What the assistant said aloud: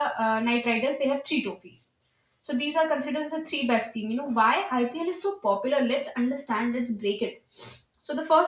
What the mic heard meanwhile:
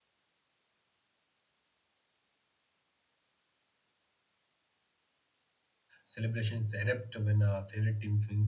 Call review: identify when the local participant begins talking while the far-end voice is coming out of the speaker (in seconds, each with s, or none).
6.0 s